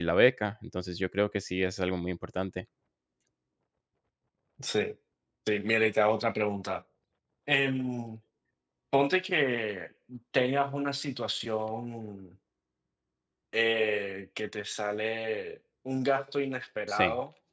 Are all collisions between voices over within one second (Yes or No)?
Yes